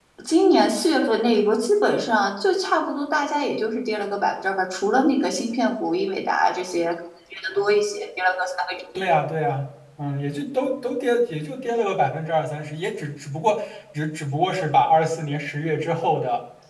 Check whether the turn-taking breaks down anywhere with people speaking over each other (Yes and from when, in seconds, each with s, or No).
No